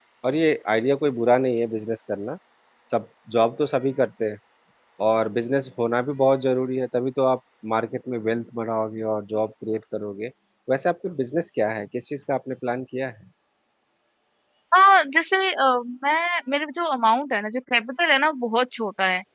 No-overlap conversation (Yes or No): Yes